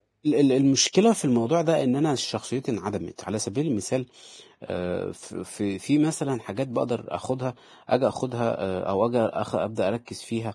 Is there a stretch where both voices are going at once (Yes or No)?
No